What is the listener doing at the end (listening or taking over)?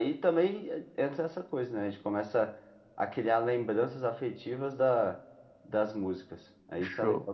taking over